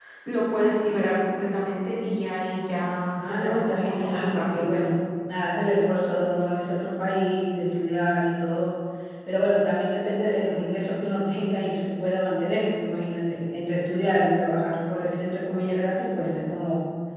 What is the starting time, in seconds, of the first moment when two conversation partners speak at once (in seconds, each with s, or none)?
3.2 s